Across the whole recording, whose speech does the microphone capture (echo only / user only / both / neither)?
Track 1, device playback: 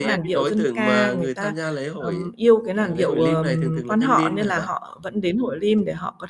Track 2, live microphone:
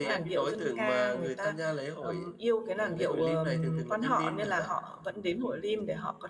echo only